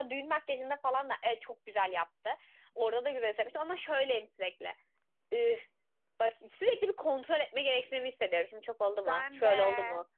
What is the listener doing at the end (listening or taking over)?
listening